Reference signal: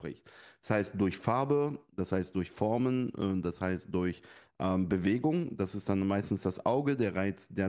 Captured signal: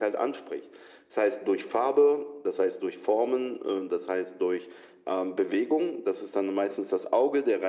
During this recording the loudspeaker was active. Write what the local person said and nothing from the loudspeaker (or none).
none